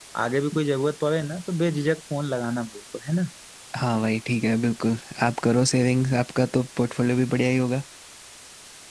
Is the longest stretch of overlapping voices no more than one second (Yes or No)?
Yes